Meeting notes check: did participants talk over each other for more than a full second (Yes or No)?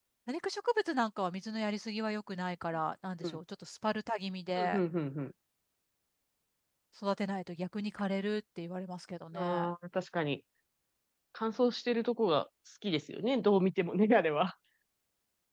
No